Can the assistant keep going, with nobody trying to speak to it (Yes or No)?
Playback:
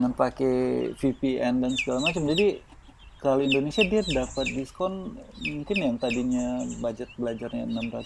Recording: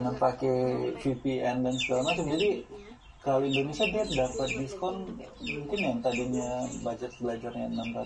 No